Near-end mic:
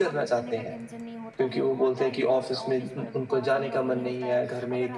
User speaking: Yes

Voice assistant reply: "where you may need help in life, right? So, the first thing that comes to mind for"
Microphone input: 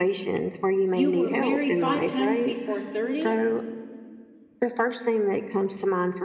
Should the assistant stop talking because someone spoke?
Yes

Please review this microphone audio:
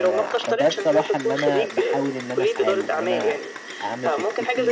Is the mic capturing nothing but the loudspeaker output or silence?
No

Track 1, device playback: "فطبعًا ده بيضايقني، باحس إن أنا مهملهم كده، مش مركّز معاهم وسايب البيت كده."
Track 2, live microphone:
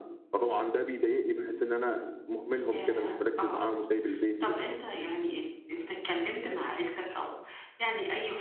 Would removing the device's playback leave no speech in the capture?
No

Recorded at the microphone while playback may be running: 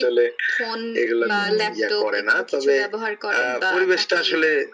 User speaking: Yes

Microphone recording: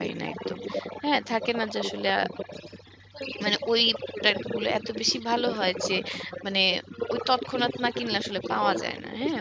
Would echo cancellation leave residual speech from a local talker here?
Yes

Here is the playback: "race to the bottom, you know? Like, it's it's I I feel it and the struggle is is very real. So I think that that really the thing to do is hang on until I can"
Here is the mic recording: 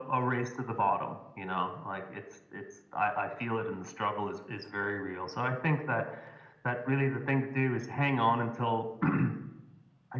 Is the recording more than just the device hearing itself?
No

